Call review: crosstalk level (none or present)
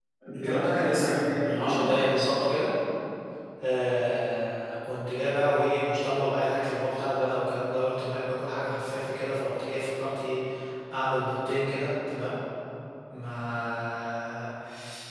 present